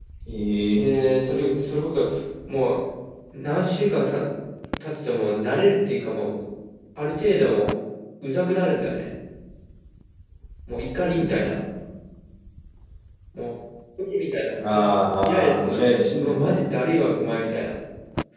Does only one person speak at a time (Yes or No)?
No